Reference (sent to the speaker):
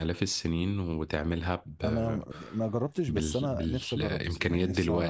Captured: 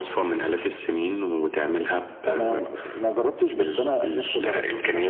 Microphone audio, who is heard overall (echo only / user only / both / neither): echo only